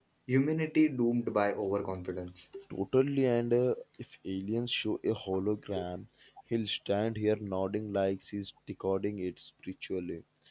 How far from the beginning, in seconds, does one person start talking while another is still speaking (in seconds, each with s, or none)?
none